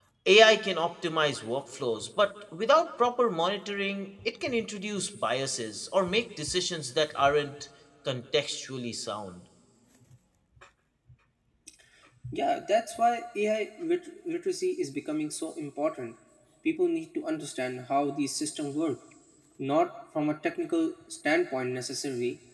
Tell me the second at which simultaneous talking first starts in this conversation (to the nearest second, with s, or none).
none